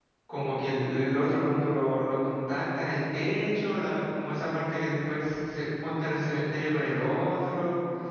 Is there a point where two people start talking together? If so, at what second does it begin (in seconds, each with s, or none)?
none